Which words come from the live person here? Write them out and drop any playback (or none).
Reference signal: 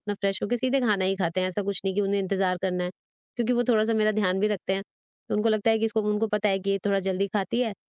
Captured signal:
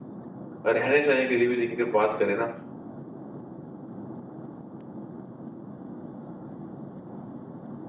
रहने-सहने के लिए भी देखिए अगर बात करें ना